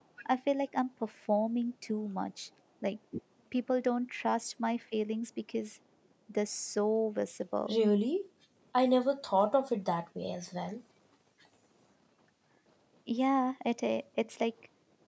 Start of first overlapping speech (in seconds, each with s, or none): none